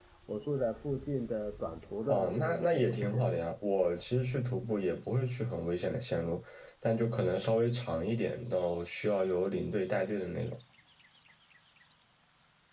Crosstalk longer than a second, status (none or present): present